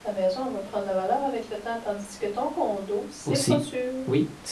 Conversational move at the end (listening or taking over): taking over